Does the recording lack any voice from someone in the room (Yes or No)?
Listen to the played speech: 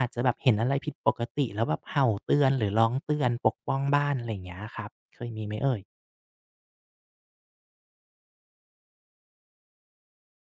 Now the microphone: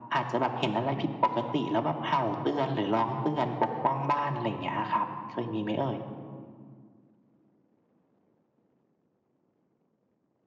Yes